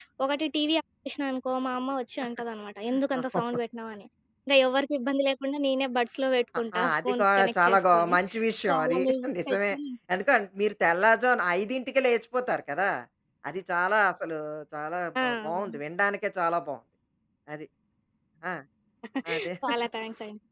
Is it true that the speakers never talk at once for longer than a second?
No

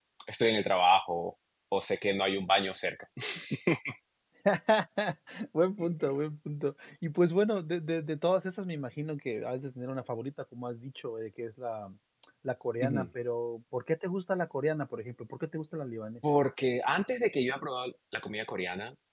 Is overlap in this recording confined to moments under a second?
Yes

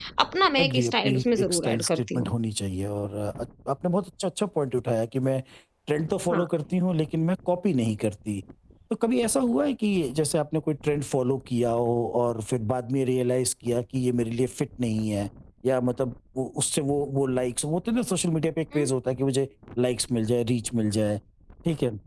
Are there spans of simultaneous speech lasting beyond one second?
Yes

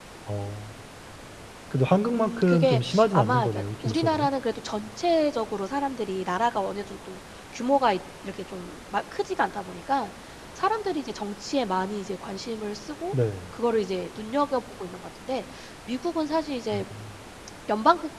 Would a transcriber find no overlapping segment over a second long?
No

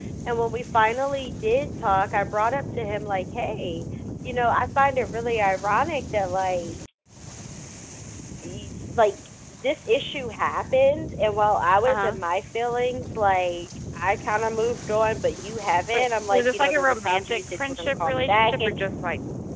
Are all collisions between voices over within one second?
No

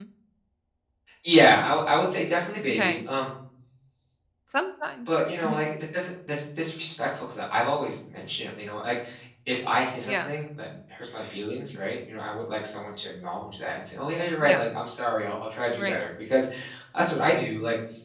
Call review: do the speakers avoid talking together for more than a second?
Yes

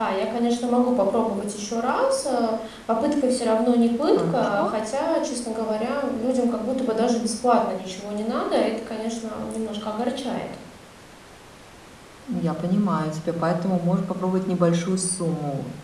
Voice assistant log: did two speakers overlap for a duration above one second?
No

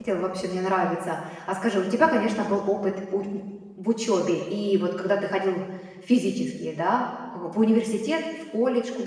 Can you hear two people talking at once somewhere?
No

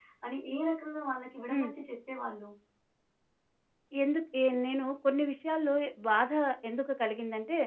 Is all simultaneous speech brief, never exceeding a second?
Yes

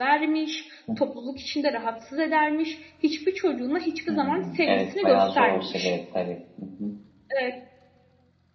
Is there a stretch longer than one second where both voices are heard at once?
Yes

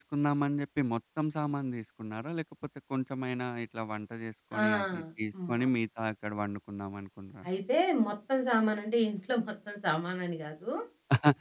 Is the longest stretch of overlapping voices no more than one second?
Yes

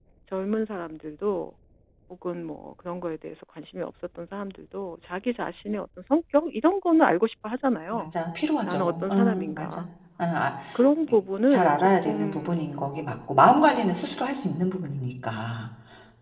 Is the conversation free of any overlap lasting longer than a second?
No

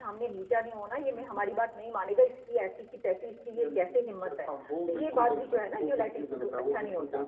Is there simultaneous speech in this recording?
Yes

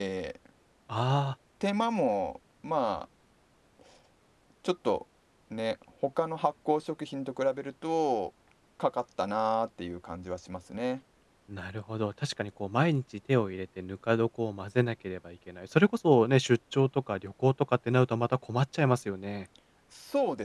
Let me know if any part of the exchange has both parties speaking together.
No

